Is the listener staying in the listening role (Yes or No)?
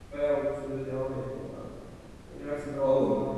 Yes